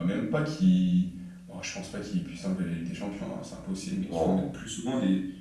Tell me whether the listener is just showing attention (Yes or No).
Yes